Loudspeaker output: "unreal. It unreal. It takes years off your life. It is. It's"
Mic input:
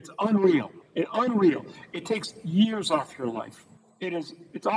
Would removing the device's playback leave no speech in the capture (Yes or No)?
Yes